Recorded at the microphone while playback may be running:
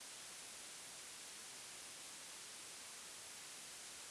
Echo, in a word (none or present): none